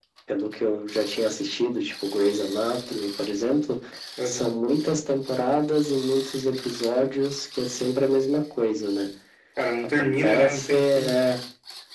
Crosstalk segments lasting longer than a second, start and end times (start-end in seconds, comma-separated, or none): 9.8-11.2